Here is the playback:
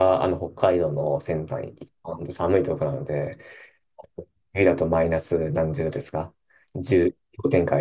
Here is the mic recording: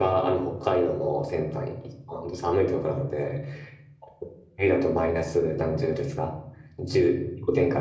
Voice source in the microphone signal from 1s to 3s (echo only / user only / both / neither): echo only